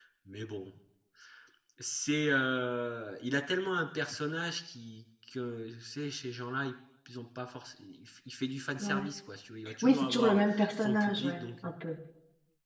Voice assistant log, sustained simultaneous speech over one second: present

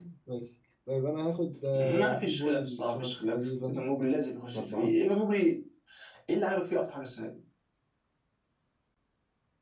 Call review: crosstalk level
present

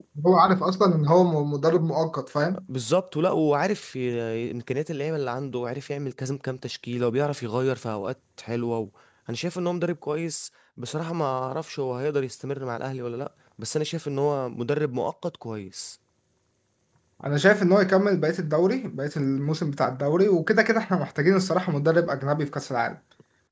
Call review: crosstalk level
none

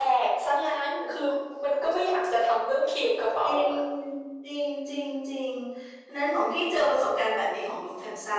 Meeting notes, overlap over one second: none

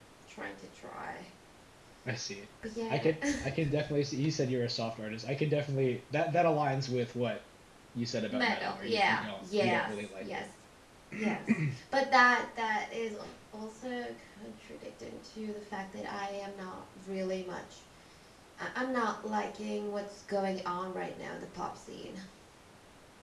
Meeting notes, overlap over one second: present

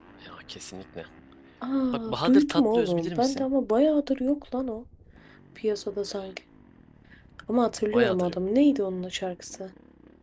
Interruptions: present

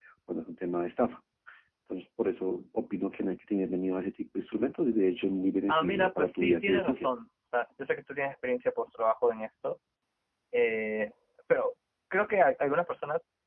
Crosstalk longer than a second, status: present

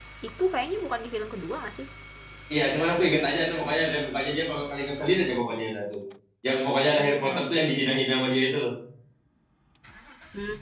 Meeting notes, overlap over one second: none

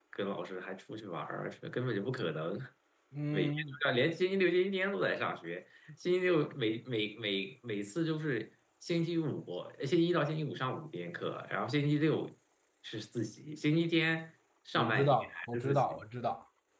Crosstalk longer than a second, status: present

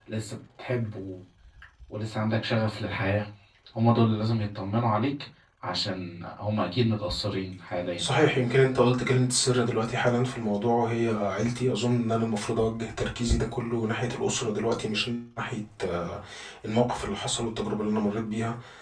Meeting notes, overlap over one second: none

